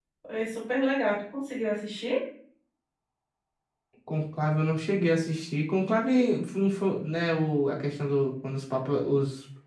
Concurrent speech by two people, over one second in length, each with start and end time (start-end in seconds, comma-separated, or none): none